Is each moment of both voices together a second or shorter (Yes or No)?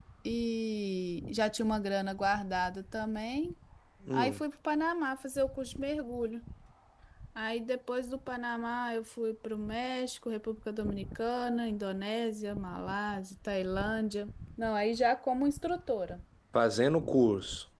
Yes